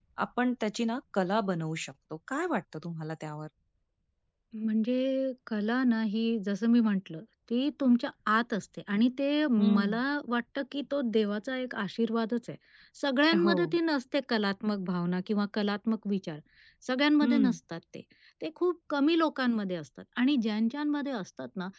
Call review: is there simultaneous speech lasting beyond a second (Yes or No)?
No